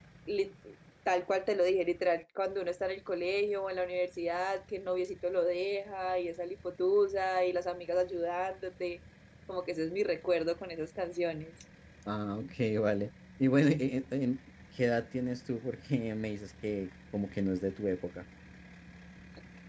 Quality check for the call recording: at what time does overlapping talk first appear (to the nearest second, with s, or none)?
none